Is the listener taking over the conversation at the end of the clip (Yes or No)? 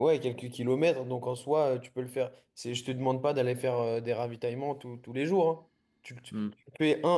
No